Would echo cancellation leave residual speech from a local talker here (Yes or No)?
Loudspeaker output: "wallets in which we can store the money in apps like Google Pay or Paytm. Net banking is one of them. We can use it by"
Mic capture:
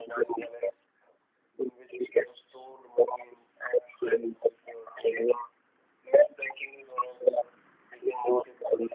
No